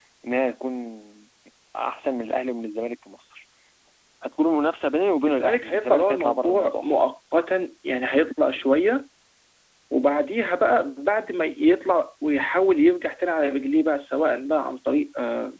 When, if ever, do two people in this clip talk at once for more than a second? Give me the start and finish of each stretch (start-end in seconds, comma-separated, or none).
5.3-7.0